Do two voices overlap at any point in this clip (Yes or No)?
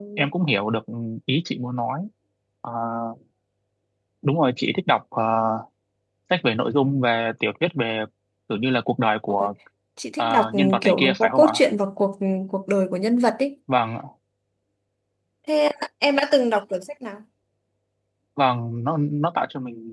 Yes